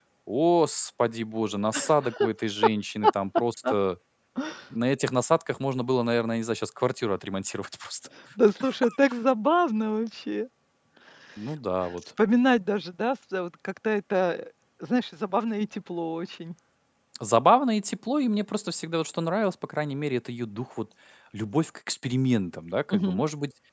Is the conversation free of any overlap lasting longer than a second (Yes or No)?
Yes